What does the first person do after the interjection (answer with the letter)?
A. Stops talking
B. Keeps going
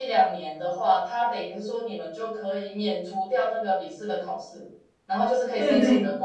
B